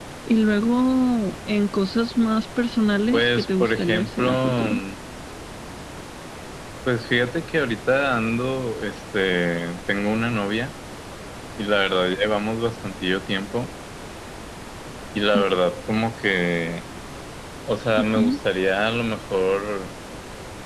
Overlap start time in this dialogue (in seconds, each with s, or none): 3.1 s